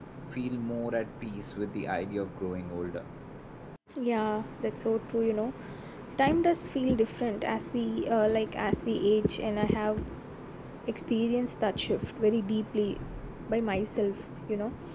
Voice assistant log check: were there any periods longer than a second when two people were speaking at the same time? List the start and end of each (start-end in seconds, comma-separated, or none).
none